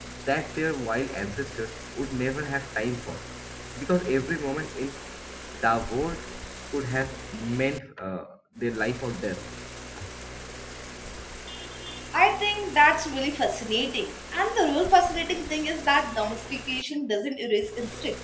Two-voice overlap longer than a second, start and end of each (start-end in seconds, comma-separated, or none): none